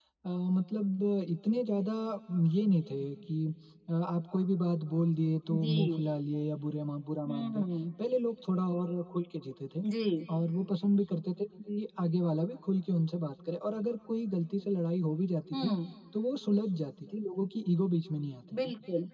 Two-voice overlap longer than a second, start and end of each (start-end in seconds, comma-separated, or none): none